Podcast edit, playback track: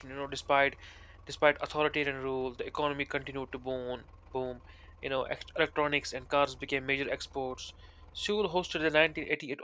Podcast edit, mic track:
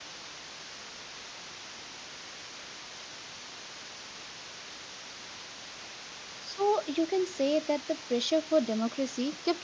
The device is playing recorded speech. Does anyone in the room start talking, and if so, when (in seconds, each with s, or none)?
6.4 s